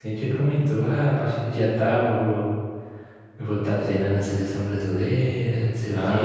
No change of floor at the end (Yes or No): No